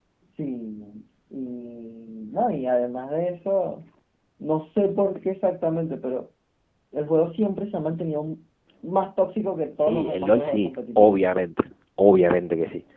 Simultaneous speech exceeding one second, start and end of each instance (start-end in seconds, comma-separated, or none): 9.8-11.2